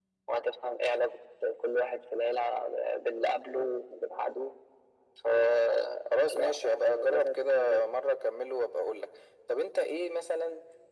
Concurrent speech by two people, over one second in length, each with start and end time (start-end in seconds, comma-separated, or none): 6.1-7.8